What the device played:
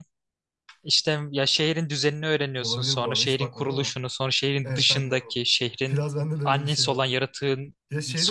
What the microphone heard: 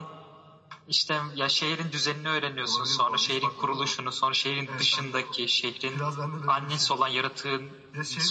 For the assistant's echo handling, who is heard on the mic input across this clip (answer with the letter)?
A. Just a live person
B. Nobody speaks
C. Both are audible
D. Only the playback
D